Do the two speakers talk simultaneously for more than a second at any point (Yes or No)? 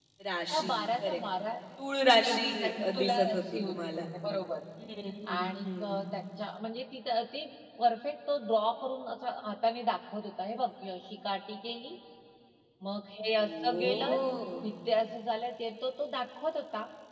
Yes